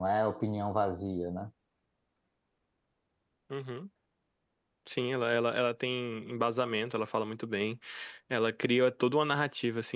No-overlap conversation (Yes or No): Yes